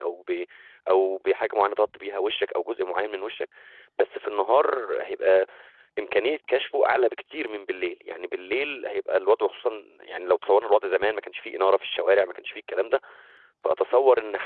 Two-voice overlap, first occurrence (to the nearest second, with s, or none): none